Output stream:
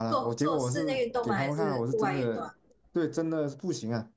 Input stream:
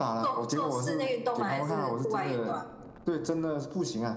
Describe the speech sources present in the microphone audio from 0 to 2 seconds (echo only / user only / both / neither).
echo only